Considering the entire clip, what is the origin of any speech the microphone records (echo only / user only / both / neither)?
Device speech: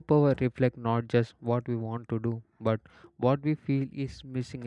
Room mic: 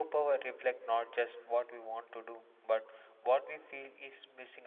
echo only